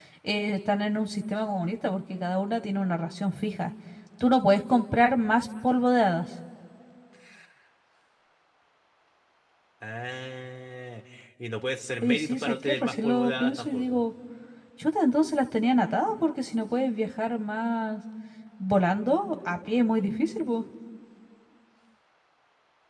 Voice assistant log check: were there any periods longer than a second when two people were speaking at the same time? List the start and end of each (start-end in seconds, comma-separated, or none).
12.0-14.0